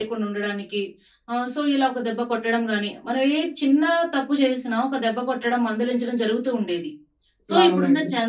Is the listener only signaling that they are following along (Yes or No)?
Yes